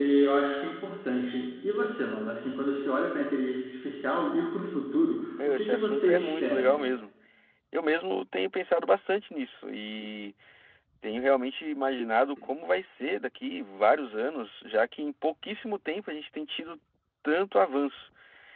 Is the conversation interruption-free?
No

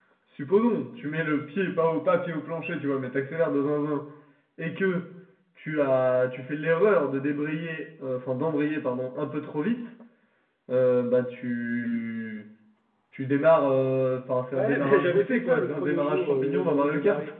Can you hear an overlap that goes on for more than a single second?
Yes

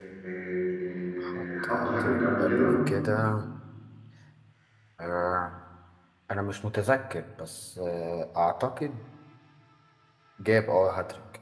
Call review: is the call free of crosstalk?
No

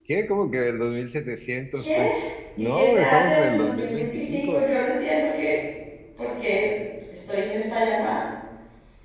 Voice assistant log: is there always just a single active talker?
No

